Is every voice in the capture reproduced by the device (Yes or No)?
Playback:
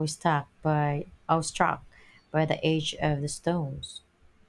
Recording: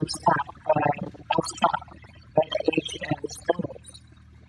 Yes